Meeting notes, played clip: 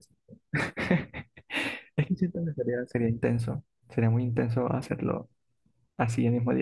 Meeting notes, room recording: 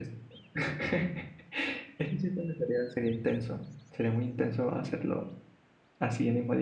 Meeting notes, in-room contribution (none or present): none